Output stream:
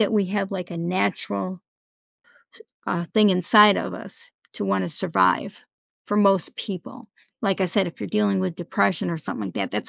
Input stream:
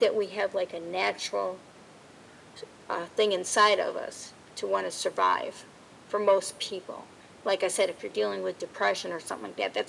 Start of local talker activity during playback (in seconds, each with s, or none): none